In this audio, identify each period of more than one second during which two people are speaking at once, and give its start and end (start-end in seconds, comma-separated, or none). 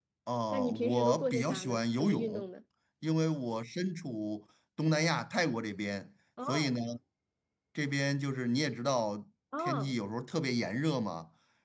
0.5-2.4